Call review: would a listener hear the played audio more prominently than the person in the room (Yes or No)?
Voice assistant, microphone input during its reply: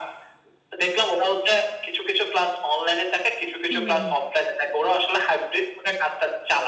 Yes